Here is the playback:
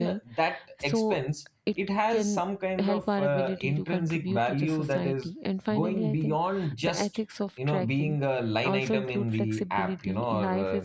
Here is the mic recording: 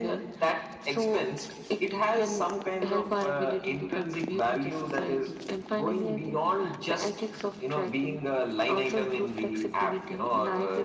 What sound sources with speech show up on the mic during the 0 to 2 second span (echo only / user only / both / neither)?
echo only